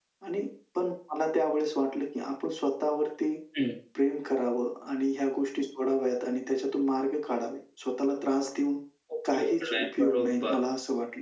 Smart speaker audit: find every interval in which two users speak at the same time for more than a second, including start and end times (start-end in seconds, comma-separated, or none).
9.3-10.6